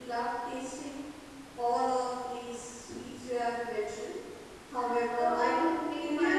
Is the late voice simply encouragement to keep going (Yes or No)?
No